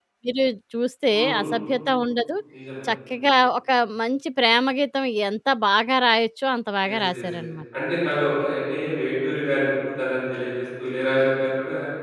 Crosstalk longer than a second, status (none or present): none